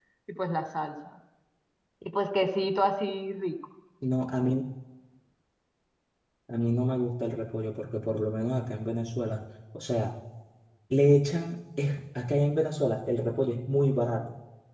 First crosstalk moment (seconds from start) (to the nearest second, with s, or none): none